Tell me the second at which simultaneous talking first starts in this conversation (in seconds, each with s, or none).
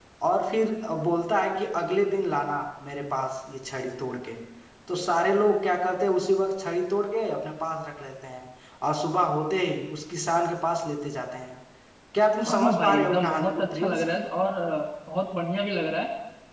12.4 s